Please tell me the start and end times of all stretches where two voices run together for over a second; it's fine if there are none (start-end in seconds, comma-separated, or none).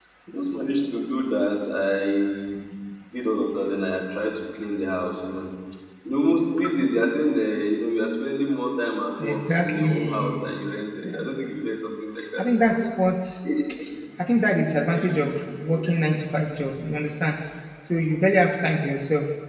9.2-10.5